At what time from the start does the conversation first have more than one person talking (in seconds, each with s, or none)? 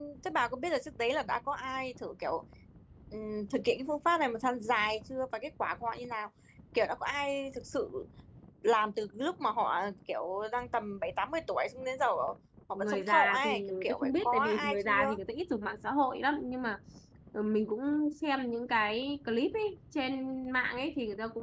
12.8 s